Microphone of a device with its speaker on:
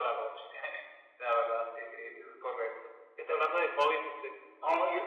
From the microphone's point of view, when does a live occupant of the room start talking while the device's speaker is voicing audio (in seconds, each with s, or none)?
none